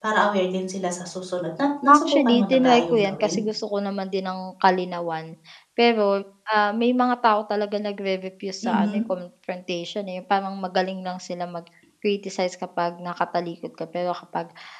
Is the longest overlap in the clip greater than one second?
Yes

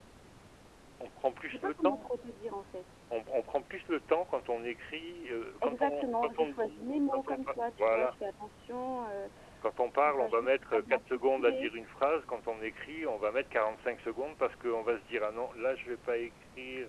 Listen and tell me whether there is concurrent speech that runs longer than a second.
Yes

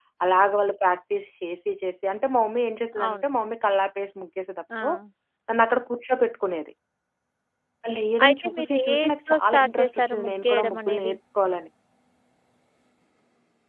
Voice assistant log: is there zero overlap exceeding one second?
No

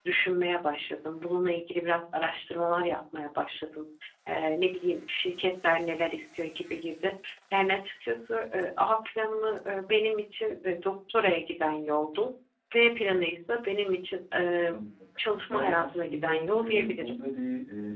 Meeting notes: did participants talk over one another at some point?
Yes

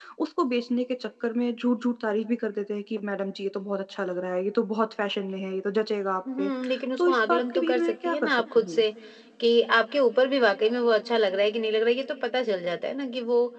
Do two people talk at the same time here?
Yes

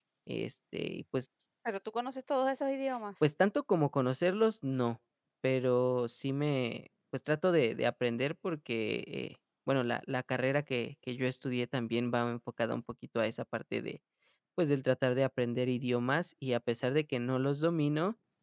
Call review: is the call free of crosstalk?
Yes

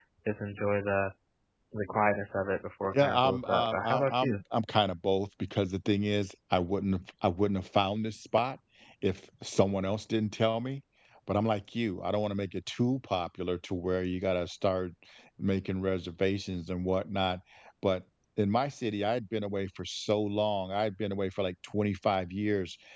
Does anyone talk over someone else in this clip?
Yes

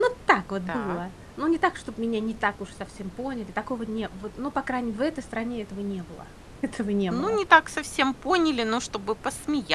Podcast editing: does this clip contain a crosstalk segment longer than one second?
No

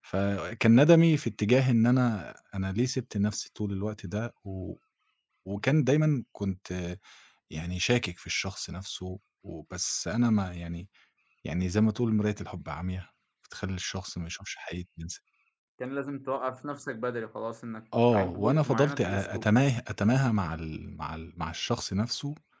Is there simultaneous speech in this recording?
Yes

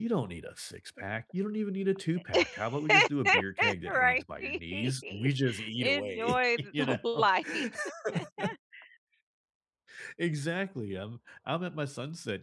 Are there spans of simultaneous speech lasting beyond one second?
Yes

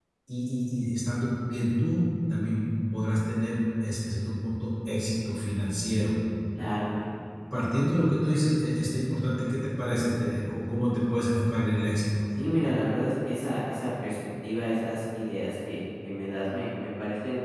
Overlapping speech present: No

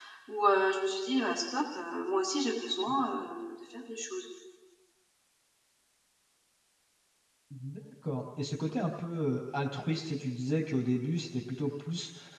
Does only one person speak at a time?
Yes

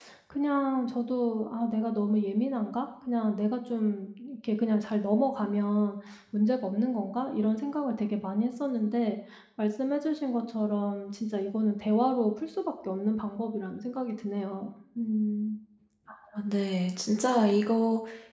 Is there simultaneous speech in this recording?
No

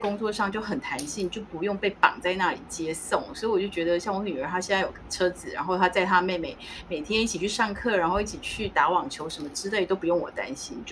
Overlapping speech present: No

